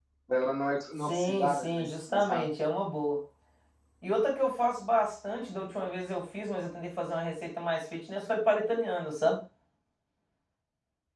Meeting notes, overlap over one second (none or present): present